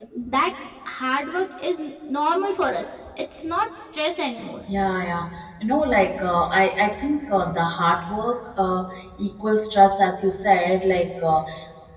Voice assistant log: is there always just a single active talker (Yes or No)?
Yes